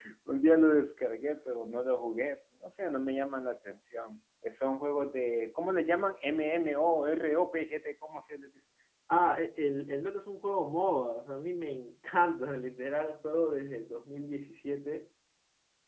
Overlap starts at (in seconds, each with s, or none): none